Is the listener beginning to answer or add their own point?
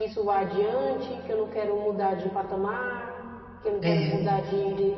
No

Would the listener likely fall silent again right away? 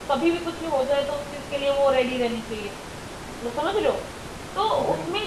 Yes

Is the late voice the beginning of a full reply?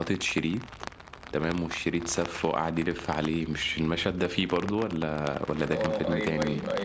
Yes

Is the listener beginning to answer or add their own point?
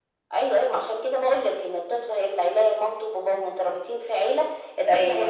Yes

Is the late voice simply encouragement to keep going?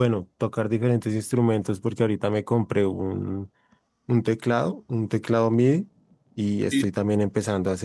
Yes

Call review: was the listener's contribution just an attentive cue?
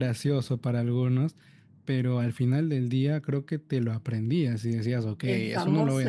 No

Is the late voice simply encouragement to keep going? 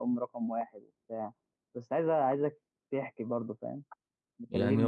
No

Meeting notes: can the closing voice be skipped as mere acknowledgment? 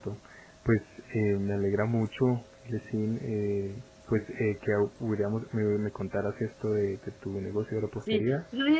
No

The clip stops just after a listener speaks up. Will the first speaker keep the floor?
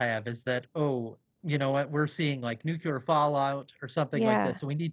Yes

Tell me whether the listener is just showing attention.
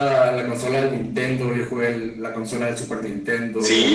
No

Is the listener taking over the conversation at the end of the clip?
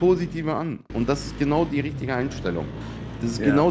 No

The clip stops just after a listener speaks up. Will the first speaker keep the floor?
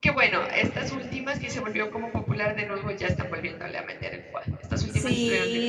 No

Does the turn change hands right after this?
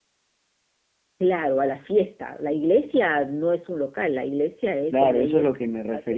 Yes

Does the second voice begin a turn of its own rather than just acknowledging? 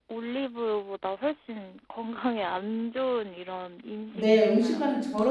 Yes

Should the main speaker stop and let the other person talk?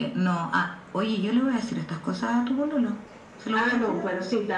Yes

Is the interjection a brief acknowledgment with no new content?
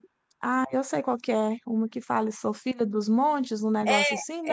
No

